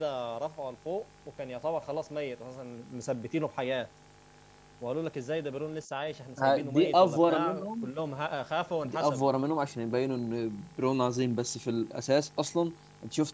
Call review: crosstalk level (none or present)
present